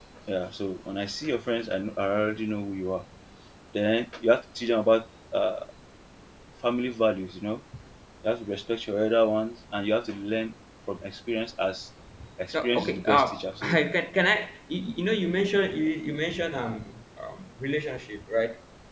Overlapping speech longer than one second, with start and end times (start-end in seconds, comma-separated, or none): 12.5-13.8